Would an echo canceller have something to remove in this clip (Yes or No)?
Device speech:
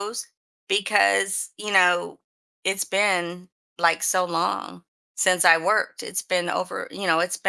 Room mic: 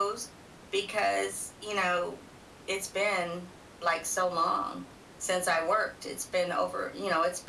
Yes